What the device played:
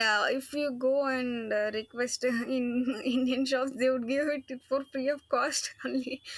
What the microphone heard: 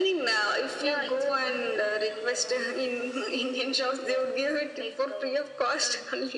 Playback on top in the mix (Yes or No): Yes